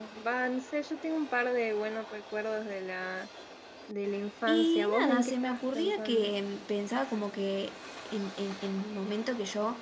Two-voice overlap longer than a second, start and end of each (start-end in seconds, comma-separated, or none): 4.5-6.3